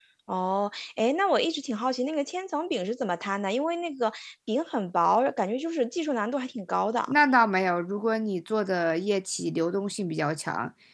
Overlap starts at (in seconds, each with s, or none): none